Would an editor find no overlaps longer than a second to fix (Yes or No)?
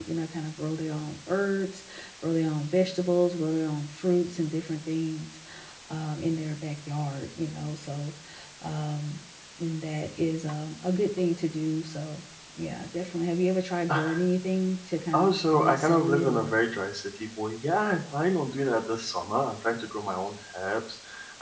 No